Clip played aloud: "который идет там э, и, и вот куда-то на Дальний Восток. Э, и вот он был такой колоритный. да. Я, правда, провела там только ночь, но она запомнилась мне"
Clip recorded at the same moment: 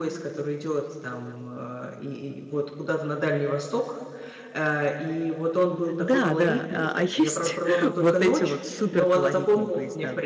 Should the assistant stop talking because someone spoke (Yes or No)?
Yes